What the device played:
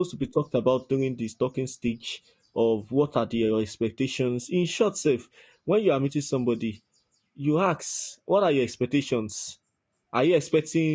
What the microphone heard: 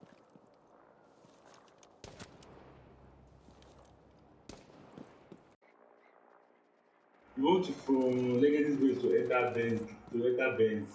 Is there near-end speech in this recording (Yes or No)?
Yes